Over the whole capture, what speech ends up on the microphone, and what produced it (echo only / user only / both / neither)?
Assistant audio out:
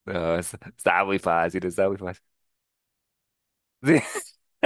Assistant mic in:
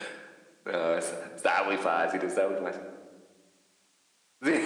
echo only